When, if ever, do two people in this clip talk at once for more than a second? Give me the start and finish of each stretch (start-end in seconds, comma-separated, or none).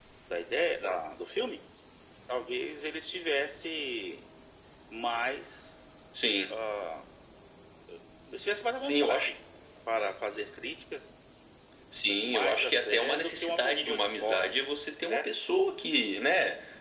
12.2-14.5